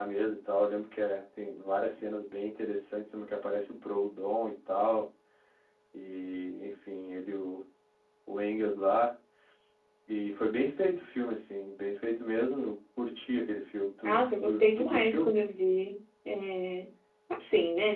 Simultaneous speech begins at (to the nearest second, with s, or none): 14 s